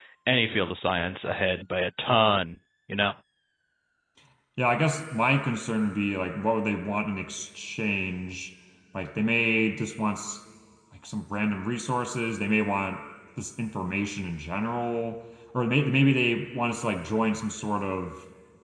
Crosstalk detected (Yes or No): No